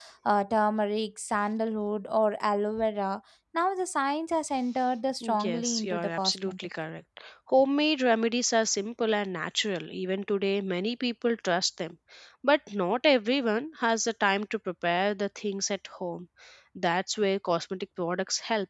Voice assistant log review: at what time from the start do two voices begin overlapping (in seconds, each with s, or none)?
5.2 s